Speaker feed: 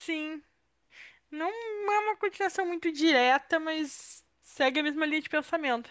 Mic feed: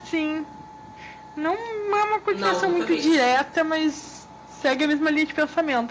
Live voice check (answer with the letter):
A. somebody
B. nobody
A